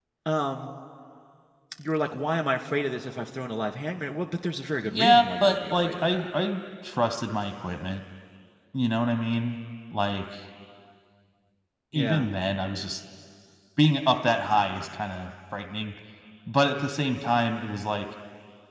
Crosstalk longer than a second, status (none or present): present